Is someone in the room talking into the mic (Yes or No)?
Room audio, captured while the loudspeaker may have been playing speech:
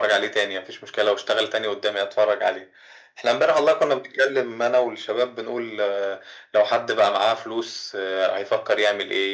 No